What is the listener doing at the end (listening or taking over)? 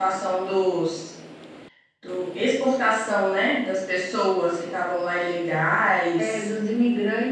taking over